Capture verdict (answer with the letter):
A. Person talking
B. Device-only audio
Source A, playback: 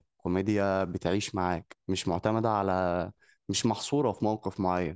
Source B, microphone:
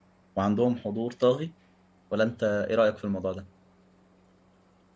A